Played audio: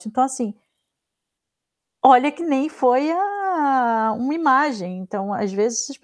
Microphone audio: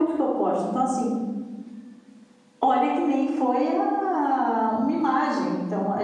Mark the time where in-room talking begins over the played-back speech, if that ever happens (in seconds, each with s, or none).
none